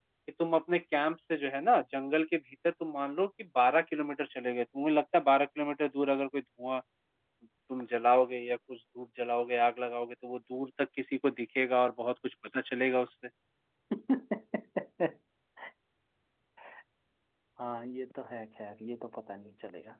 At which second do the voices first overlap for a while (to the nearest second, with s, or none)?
none